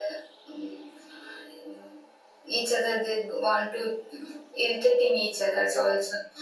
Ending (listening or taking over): listening